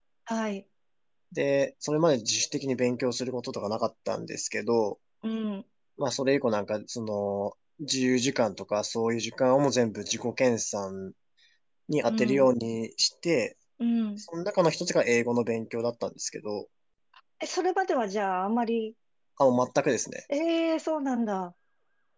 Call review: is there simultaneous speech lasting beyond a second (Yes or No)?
No